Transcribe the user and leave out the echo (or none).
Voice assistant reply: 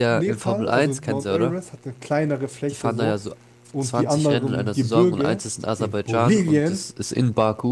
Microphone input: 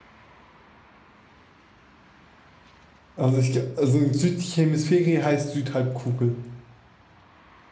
Also, ich, ge- also Südhemisphäre heißt Südhalbkugel.